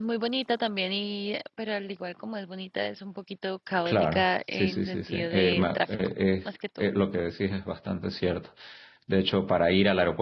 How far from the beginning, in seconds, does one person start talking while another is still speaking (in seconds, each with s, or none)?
3.9 s